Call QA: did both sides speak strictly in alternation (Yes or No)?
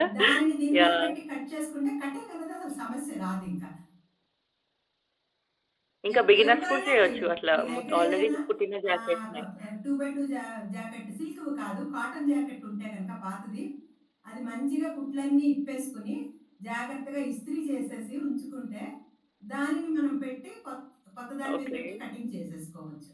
No